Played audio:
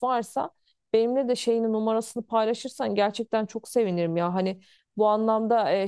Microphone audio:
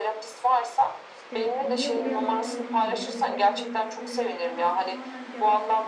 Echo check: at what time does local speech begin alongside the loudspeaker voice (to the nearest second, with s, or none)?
1 s